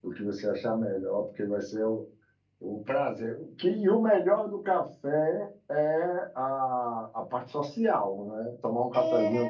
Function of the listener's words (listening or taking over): taking over